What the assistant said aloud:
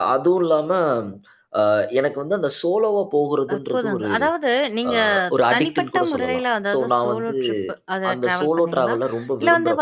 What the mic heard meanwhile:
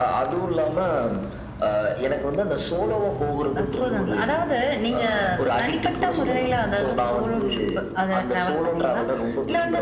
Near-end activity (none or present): none